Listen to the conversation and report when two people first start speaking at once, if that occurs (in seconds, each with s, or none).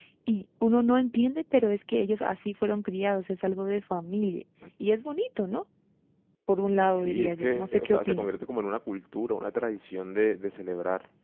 6.8 s